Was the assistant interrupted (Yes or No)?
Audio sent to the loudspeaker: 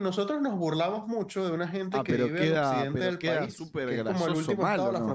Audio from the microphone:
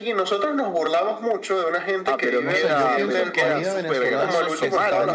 Yes